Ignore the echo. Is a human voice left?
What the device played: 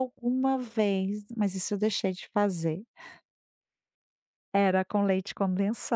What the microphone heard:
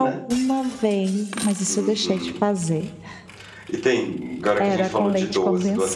Yes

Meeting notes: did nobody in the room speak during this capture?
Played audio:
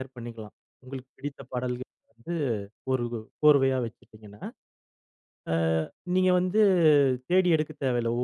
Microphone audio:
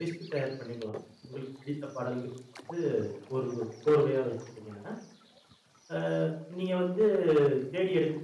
Yes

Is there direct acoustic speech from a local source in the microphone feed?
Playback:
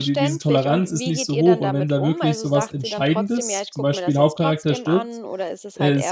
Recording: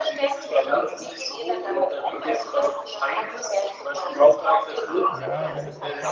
Yes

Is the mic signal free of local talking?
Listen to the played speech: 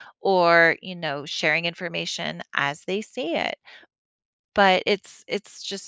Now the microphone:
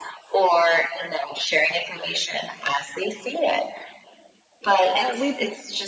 No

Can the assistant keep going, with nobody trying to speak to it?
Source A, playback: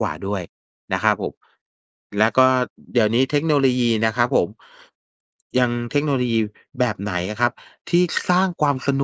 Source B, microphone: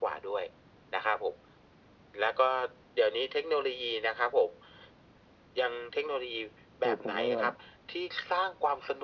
No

